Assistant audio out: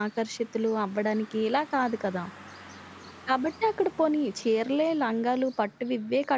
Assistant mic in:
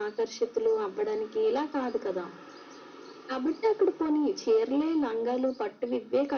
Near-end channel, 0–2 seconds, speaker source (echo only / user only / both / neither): echo only